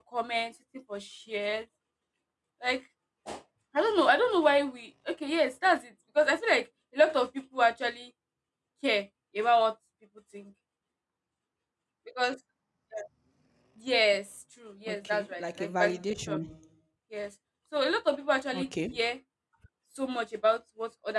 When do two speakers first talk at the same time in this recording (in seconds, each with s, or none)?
14.9 s